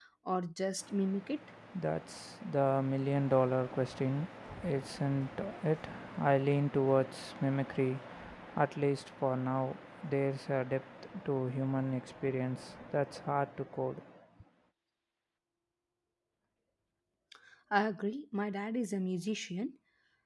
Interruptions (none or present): none